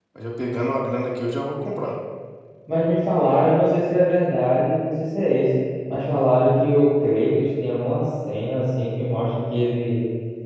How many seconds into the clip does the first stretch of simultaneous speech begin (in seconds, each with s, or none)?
none